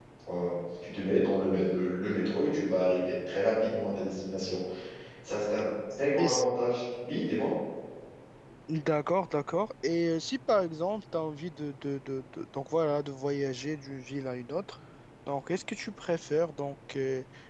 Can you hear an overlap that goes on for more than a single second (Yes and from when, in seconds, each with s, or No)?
No